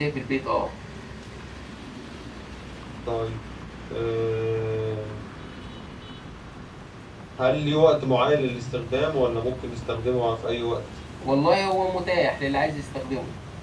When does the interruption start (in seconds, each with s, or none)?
none